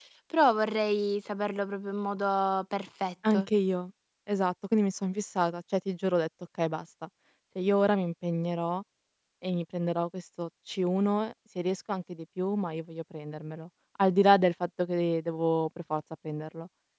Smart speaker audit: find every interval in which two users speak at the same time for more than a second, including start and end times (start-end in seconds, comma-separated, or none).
none